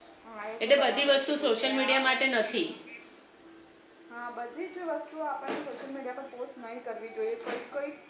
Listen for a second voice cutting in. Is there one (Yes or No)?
Yes